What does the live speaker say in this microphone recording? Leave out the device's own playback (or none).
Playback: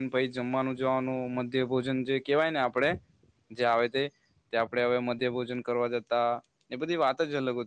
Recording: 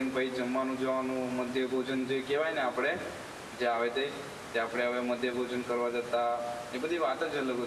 none